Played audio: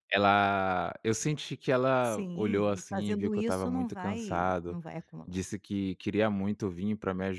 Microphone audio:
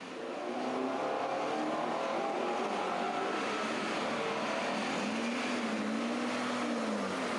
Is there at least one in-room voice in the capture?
No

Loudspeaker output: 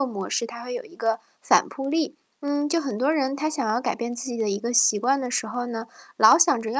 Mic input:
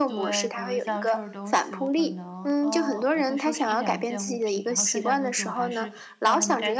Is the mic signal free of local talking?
No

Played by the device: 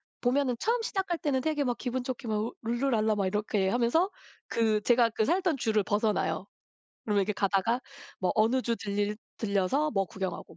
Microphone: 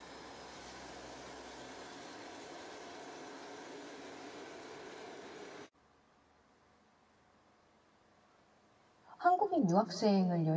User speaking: Yes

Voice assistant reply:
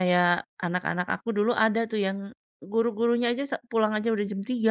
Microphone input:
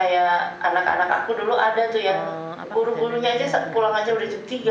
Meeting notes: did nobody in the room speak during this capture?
No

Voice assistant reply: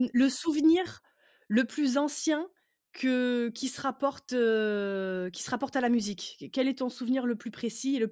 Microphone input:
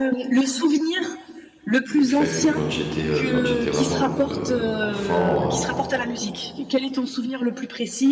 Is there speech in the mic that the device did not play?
Yes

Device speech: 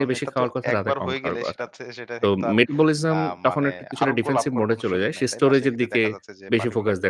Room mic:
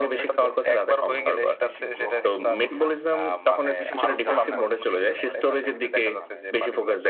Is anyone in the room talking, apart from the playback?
Yes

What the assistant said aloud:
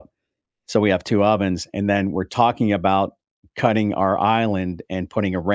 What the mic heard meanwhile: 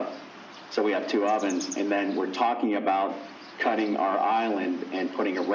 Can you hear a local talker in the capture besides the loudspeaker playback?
No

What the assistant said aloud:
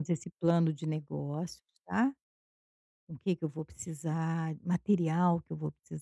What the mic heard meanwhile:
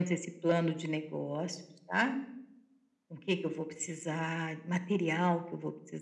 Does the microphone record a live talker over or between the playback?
No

